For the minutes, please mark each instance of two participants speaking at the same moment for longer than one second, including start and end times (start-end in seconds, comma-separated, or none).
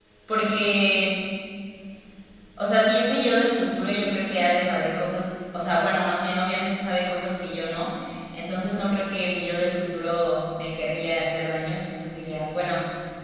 none